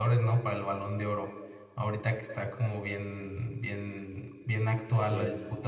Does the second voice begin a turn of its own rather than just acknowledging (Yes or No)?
No